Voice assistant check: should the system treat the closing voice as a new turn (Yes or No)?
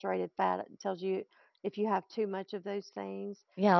Yes